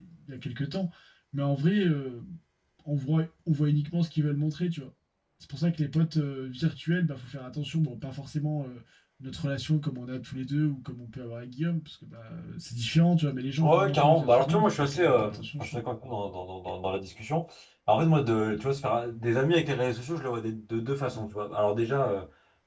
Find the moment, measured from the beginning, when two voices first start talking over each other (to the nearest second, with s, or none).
14 s